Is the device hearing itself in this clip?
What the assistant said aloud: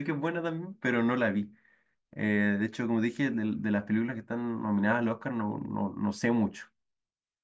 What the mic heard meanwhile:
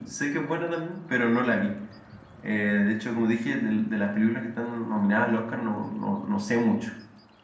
Yes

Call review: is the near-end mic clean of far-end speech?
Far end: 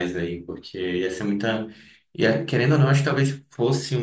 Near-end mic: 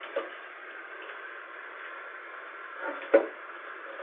Yes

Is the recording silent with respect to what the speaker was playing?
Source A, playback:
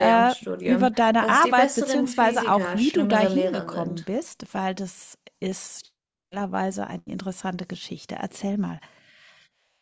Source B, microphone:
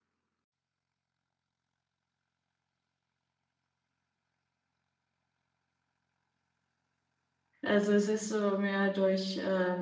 Yes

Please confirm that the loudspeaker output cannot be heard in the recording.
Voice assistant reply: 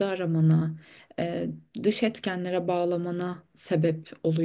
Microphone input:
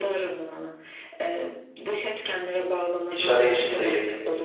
No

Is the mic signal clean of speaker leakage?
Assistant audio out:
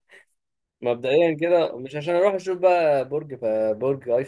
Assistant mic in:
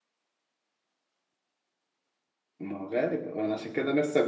Yes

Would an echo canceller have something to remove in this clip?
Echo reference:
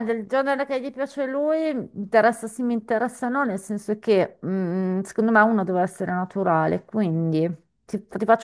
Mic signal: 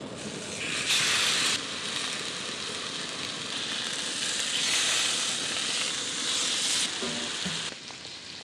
No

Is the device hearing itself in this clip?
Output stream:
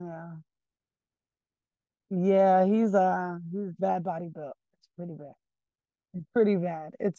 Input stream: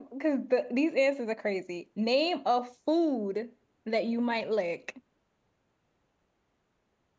No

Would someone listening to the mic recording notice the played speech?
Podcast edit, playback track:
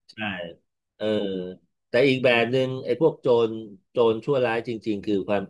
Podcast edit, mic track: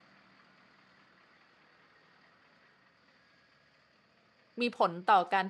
No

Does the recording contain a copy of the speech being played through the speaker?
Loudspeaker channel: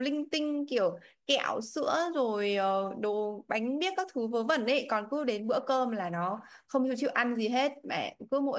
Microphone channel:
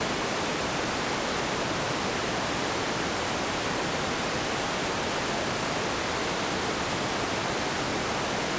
No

